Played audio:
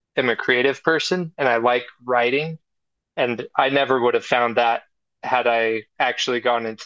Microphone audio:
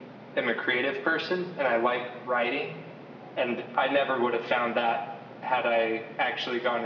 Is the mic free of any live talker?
Yes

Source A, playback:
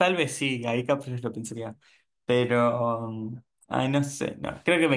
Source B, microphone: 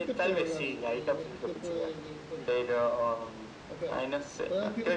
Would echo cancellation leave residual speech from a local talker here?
Yes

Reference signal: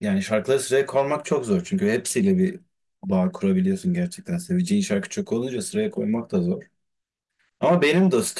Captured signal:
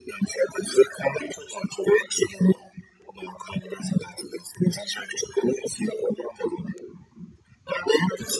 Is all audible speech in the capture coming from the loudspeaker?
Yes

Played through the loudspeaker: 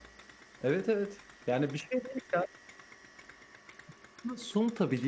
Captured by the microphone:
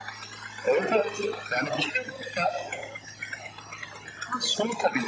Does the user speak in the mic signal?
No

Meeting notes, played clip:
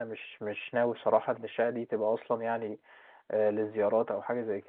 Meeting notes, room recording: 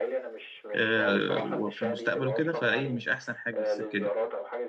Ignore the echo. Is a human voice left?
Yes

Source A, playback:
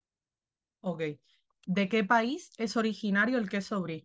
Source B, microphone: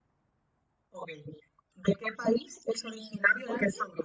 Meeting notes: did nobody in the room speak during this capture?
No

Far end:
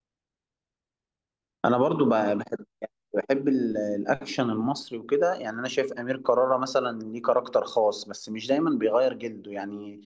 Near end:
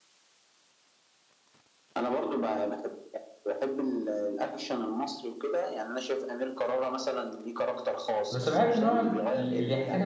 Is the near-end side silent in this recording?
No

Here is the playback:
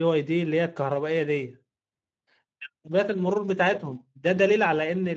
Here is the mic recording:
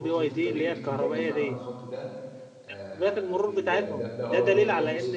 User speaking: Yes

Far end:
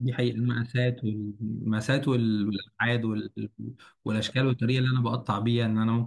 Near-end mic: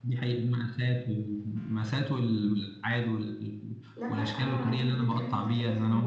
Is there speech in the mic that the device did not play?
Yes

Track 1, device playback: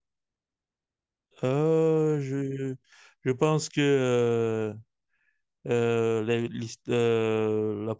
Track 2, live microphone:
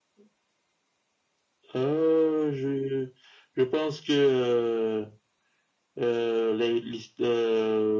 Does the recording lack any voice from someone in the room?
Yes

